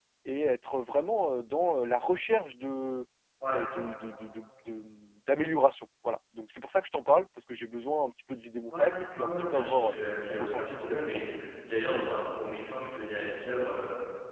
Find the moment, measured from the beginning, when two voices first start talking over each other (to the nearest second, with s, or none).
9 s